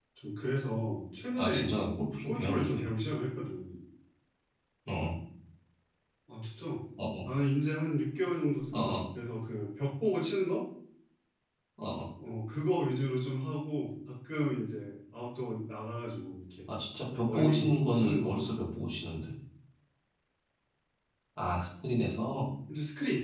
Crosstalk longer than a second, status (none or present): present